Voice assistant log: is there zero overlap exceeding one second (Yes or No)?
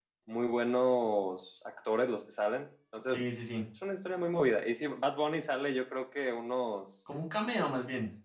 Yes